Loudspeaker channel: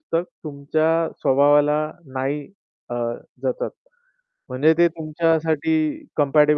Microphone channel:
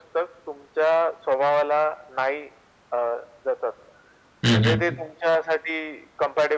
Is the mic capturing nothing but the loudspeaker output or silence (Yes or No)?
No